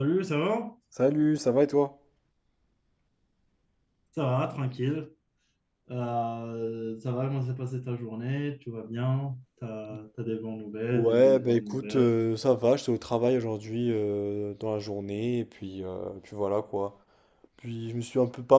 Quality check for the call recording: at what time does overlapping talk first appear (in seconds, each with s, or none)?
10.9 s